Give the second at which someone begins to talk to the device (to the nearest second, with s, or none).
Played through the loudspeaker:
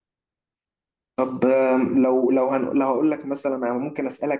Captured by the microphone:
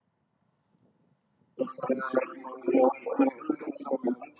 none